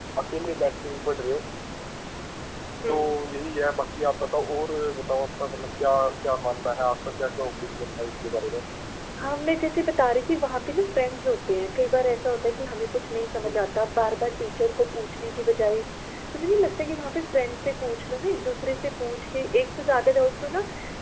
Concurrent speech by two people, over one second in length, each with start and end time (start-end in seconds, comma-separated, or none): none